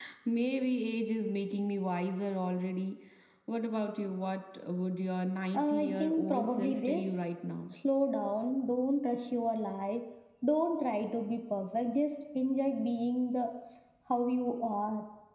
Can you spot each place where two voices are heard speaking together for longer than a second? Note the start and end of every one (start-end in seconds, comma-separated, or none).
5.5-7.1